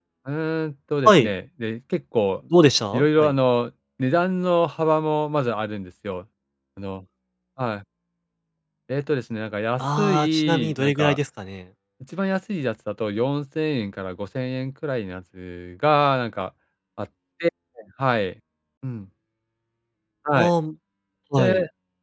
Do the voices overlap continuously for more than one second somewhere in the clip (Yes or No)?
Yes